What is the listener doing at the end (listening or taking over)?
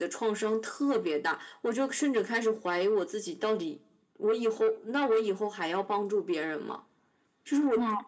listening